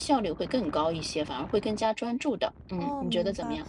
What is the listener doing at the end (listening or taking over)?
taking over